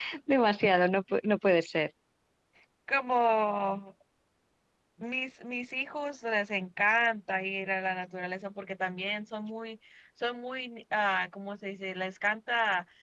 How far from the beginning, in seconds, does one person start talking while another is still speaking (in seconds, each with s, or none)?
none